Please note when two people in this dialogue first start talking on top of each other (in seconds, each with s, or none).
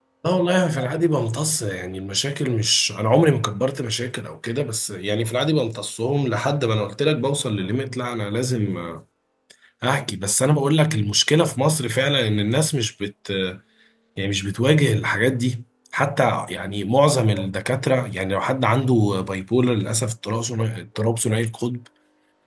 none